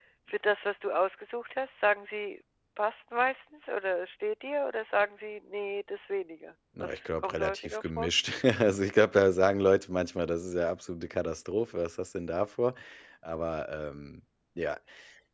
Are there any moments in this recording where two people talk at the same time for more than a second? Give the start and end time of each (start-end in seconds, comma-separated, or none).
6.8-8.1